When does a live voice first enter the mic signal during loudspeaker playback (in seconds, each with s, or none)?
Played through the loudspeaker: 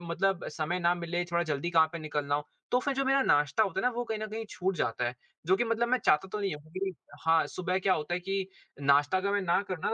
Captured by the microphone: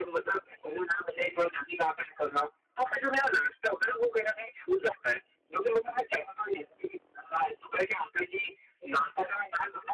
none